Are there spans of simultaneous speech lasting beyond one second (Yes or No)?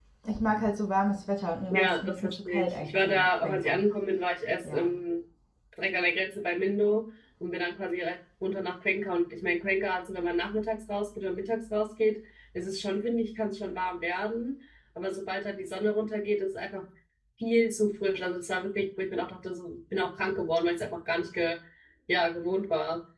Yes